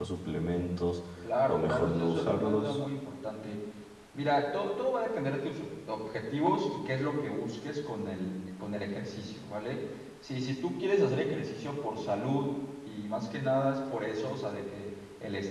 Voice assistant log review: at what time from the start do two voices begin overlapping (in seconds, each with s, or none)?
1.4 s